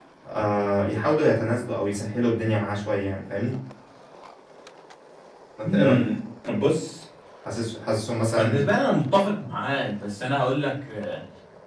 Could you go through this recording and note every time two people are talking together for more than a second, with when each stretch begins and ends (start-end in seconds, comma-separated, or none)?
none